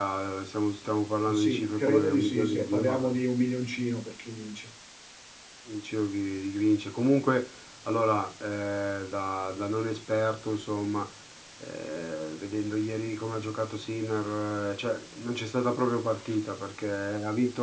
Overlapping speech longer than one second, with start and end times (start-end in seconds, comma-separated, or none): 1.3-3.2